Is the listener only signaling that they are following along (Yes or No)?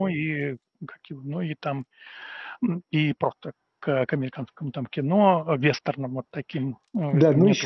No